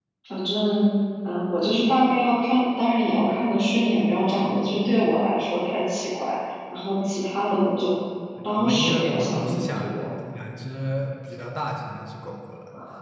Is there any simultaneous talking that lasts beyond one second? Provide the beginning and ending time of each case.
8.4-9.8

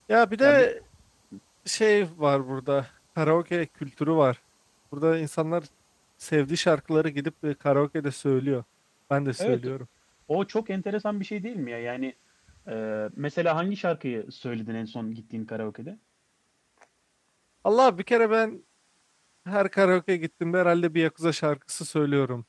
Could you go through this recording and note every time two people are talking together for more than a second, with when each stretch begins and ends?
none

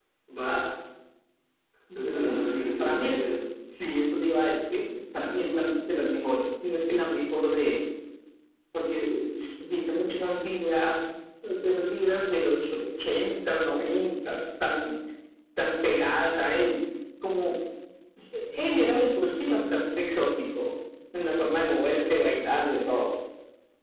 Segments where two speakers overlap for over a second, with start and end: 1.9-3.2

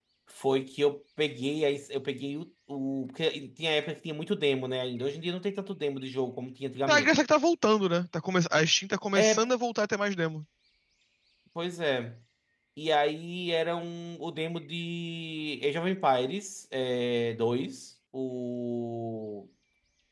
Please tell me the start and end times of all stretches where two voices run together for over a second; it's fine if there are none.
none

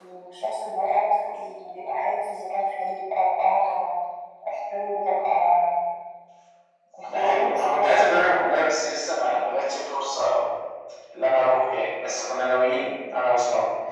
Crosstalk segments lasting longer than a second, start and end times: 7.1-8.6

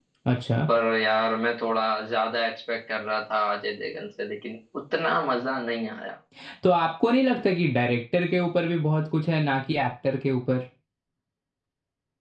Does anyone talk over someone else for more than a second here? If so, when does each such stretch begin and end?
none

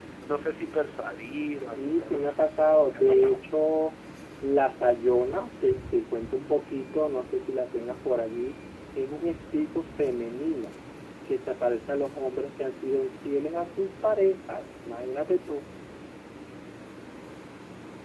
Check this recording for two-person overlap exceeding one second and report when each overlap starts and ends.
1.8-3.4

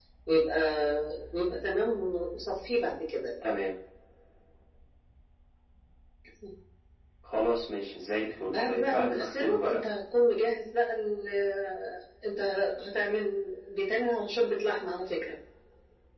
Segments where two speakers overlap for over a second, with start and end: 8.5-9.8

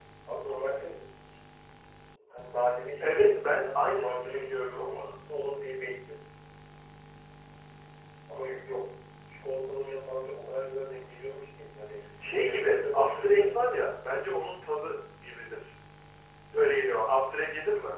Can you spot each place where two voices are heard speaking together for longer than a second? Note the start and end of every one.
3.8-5.1, 12.3-13.7

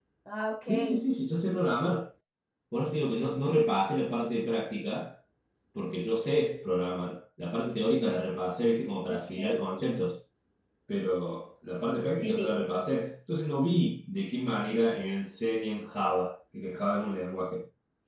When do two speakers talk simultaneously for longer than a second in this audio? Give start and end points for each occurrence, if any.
none

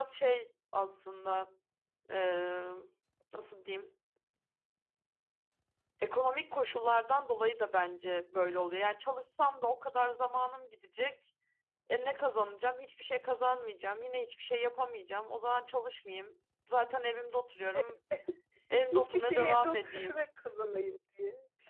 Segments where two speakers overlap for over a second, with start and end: 18.9-20.3

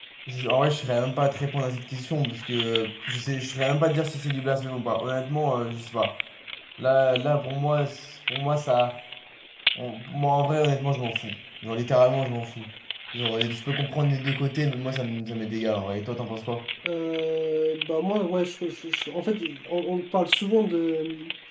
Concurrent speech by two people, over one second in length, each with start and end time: none

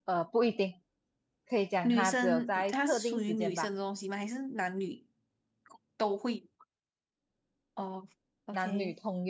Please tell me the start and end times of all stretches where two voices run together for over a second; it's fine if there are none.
1.8-3.7

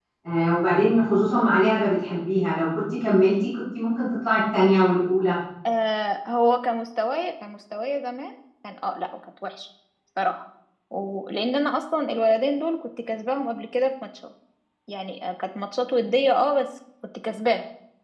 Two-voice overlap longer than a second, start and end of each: none

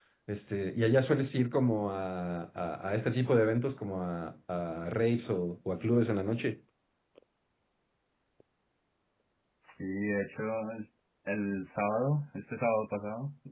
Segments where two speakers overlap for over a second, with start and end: none

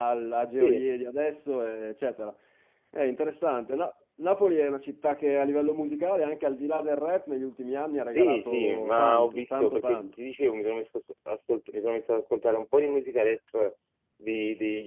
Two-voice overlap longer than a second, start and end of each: 8.1-10.1

